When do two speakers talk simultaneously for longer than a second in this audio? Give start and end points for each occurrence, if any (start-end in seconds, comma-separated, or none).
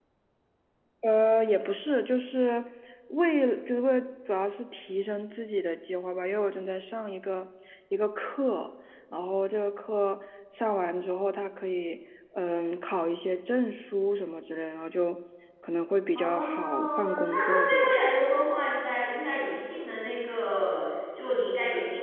16.2-18.0